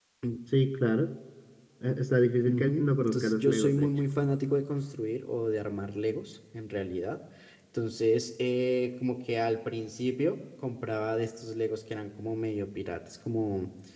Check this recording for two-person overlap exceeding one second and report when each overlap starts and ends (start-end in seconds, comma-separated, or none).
2.4-3.9